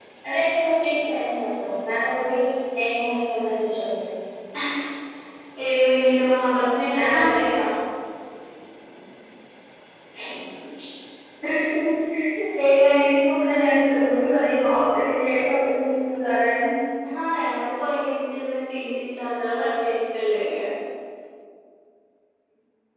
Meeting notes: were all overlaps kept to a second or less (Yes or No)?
Yes